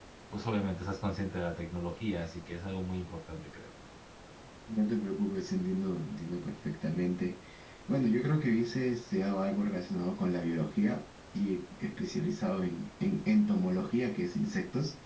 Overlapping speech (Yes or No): No